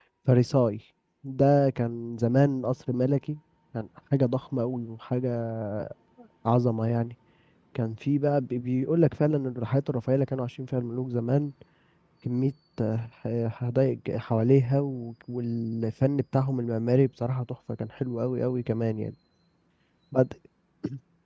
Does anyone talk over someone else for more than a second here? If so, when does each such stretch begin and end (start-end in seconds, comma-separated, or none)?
none